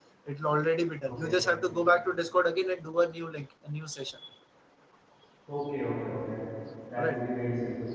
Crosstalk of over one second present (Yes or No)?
No